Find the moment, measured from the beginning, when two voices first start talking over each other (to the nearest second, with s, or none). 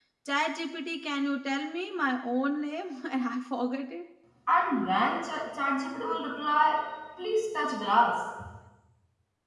none